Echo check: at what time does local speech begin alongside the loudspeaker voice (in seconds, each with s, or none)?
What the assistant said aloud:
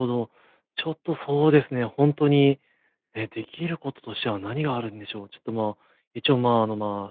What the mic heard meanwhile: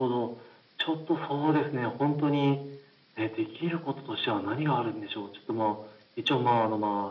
none